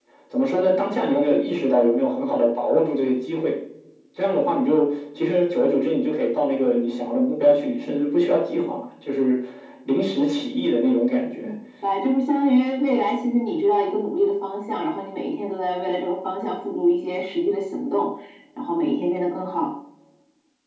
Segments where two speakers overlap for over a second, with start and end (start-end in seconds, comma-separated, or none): none